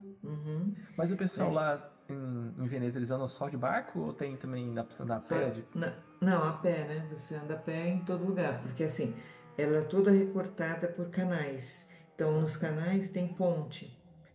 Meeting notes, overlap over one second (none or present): none